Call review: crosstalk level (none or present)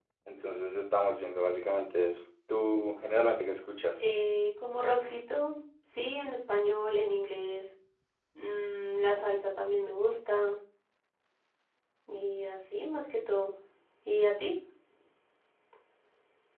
none